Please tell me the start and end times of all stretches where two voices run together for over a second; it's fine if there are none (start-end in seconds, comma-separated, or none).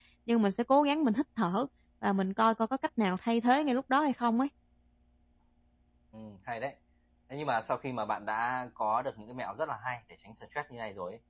none